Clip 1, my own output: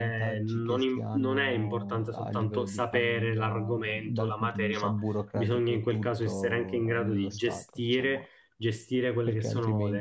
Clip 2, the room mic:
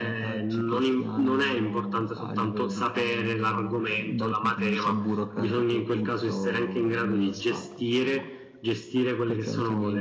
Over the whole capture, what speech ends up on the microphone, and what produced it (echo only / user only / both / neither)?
echo only